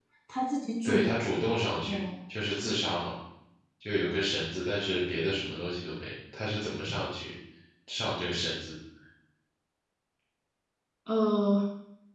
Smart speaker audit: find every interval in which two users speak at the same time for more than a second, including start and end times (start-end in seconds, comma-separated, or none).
none